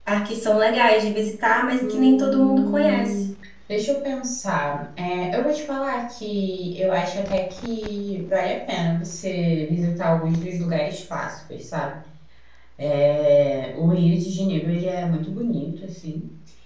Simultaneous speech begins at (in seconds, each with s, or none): 1.8 s